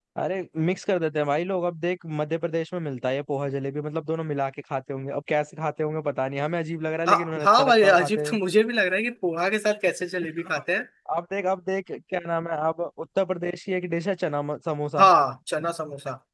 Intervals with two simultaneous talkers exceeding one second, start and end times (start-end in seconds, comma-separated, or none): 7.1-8.3